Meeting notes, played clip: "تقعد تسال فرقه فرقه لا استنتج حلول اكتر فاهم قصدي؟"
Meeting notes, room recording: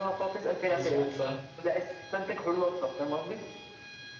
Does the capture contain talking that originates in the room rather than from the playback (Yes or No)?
Yes